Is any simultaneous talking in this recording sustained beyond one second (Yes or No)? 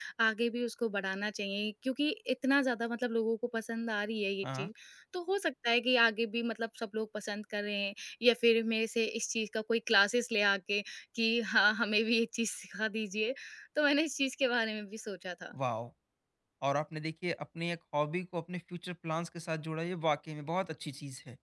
No